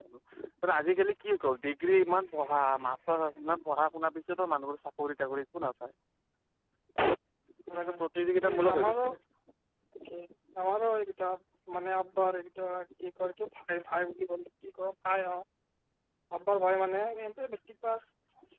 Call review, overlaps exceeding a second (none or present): present